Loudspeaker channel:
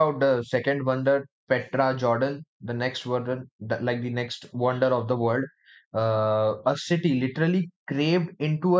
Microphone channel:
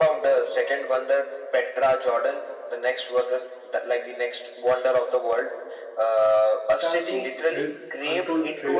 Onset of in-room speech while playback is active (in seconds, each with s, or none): 6.7 s